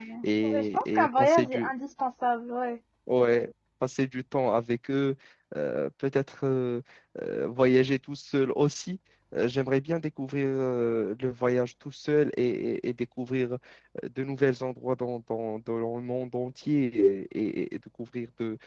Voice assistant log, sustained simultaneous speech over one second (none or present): present